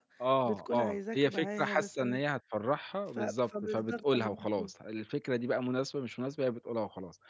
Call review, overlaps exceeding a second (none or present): present